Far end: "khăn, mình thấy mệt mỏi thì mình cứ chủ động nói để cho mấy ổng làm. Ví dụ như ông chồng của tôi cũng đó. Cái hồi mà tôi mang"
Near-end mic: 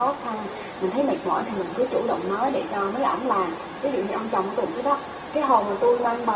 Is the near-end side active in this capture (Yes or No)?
No